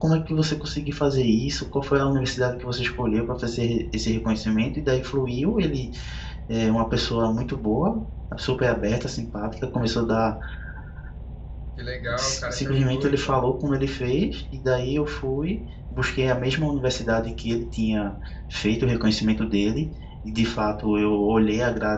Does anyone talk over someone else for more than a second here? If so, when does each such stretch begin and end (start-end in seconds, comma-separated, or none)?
12.2-13.4